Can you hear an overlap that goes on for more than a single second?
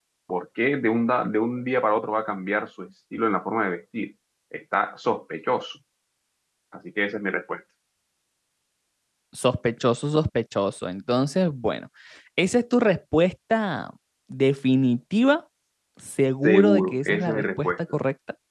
Yes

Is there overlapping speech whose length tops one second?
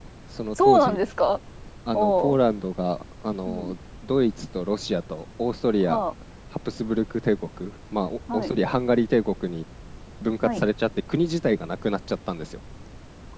No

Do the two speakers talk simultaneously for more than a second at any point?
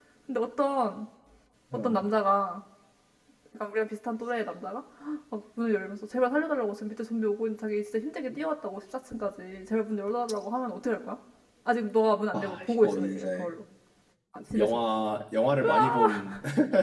Yes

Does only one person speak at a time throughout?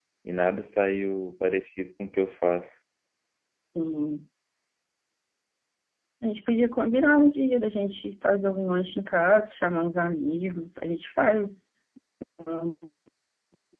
Yes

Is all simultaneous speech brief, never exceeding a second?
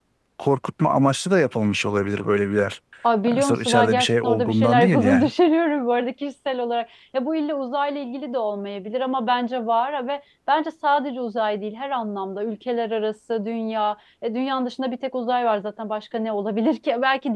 No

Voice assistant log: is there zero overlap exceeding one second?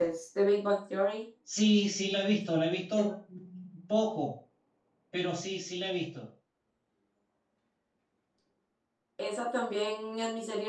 Yes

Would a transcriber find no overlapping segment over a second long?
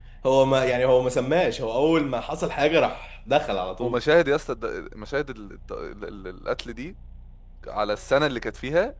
Yes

